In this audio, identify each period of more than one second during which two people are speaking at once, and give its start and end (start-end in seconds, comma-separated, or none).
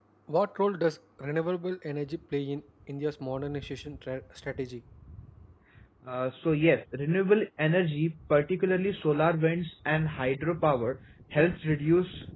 none